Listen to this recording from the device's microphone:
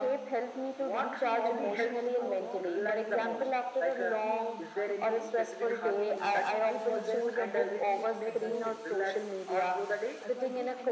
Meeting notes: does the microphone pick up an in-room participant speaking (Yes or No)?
Yes